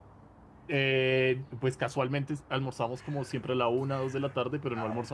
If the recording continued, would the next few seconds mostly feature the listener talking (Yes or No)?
No